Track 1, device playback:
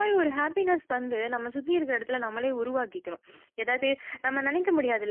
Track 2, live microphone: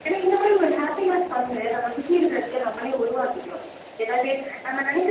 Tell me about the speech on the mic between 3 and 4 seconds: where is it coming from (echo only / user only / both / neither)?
echo only